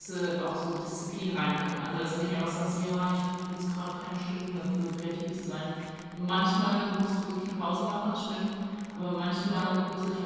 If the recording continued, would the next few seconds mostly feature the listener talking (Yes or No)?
No